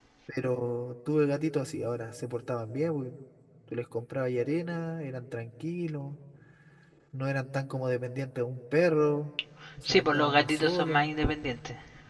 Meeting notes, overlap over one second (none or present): present